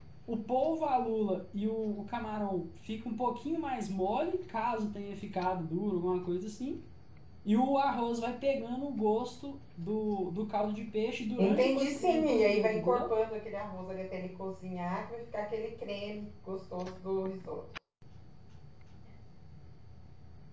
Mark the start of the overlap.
11.4 s

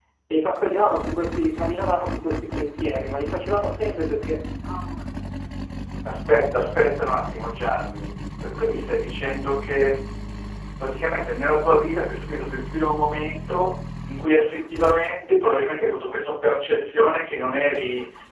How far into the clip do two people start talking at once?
none

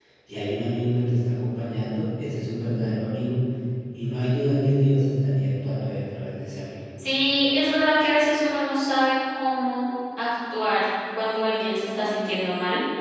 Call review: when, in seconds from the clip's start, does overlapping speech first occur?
none

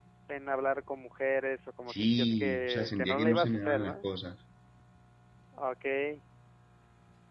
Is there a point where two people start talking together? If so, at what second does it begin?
1.9 s

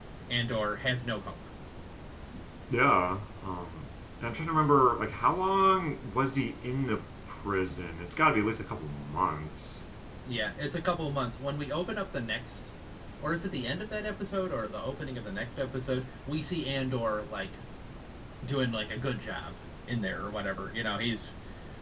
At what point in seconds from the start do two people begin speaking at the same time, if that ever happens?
none

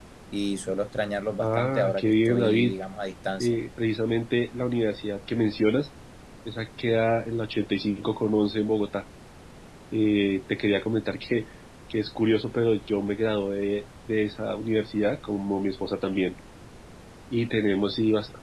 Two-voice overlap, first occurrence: 1.4 s

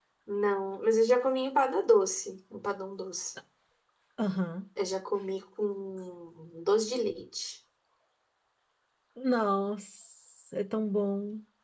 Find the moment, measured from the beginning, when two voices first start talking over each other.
none

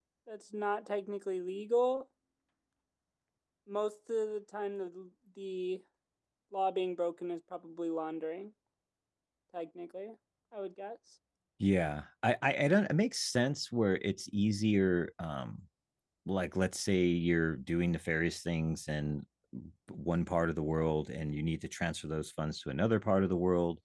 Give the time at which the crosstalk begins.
none

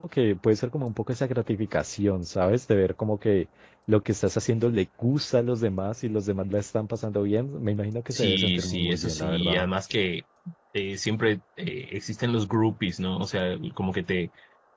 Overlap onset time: 8.1 s

